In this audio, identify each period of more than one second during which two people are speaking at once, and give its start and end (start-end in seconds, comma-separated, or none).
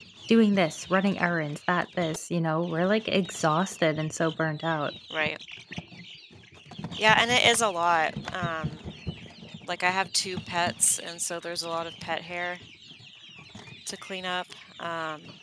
none